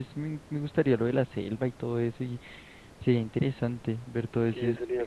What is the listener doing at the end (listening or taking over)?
taking over